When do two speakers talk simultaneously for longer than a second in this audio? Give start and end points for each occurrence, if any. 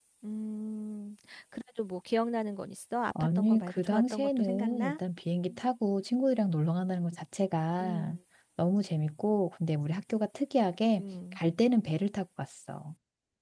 3.2-5.0

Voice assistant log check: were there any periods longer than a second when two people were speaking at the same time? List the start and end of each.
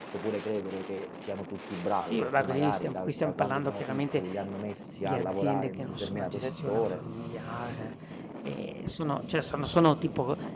2.0-4.2, 5.0-7.0

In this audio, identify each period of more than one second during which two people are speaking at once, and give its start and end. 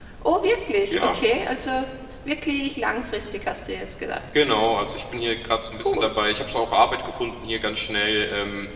none

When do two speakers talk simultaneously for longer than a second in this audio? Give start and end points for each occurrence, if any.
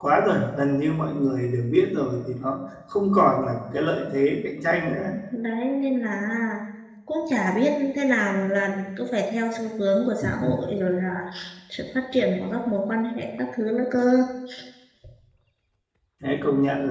none

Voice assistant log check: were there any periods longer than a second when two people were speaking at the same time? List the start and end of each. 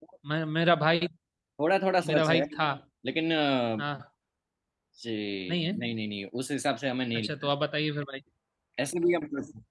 none

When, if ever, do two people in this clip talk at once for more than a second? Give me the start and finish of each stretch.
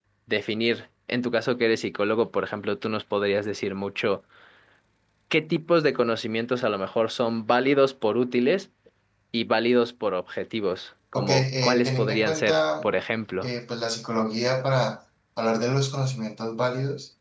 11.2-12.9

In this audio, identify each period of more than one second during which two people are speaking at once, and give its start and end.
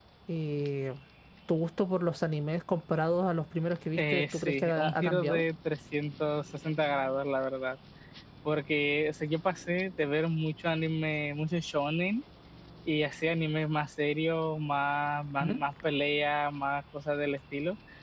4.0-5.4

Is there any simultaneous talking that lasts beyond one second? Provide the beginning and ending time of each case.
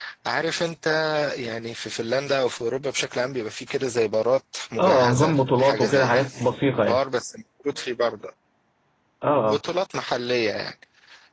4.8-6.3

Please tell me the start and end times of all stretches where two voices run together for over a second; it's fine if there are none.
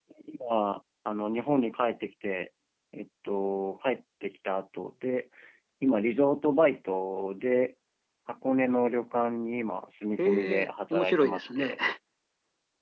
10.2-11.8

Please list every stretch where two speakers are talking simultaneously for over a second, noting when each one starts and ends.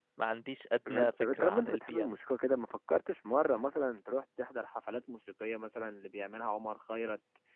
0.9-2.2

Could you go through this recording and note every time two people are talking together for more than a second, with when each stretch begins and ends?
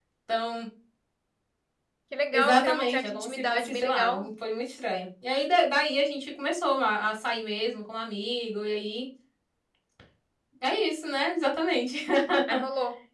2.3-4.3

